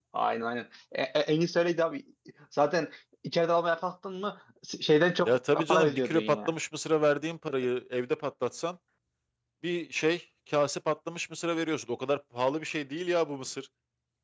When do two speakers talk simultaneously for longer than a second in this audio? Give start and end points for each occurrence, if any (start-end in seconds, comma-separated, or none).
5.2-6.5